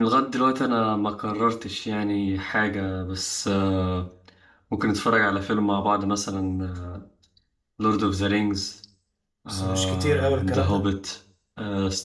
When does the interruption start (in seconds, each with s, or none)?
9.5 s